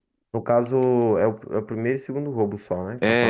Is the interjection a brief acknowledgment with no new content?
No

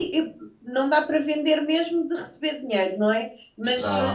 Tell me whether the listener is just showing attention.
Yes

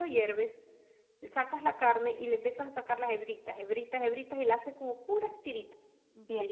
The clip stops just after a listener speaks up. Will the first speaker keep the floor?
No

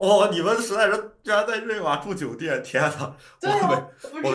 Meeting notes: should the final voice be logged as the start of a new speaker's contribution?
Yes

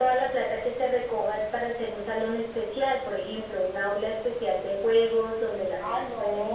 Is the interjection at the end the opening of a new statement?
Yes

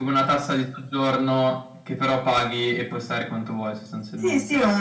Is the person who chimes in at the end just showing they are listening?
No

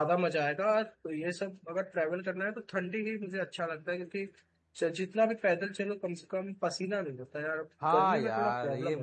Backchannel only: No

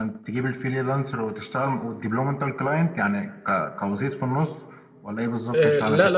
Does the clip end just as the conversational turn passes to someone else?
Yes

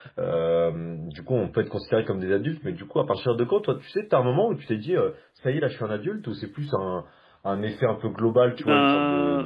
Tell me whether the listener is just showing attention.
Yes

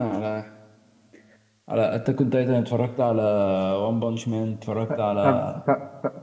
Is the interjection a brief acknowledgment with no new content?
No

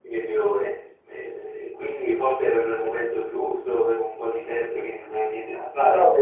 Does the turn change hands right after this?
Yes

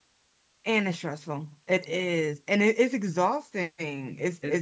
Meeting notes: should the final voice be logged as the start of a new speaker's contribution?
No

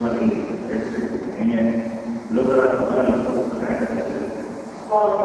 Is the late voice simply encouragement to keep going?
Yes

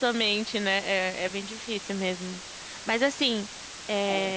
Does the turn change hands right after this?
No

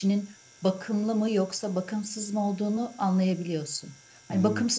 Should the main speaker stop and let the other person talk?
No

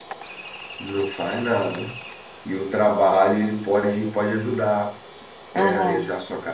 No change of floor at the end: Yes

